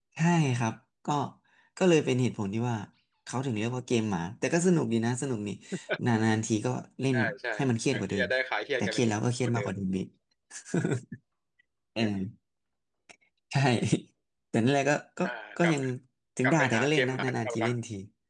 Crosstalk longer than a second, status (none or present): present